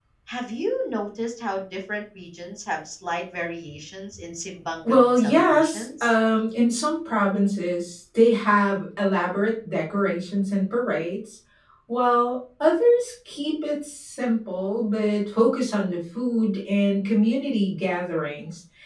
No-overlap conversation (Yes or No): No